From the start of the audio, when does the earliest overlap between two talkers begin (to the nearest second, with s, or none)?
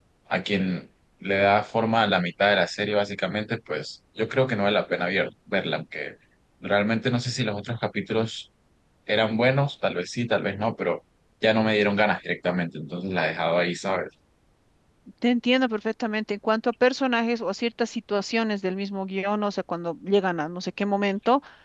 none